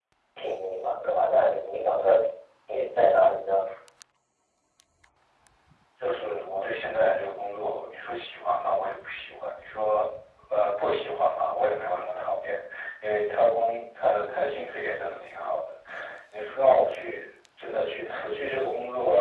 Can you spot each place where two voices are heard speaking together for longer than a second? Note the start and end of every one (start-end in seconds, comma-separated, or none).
none